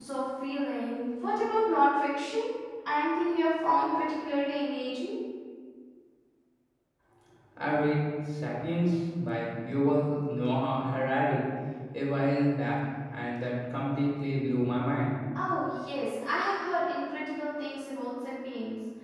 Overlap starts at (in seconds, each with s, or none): none